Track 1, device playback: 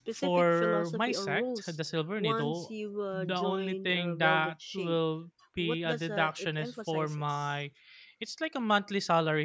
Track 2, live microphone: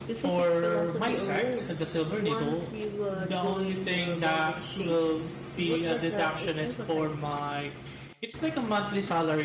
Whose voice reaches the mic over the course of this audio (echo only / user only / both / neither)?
echo only